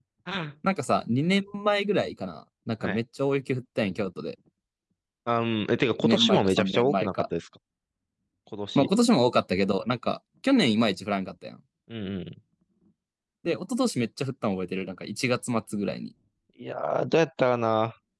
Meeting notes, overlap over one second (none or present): present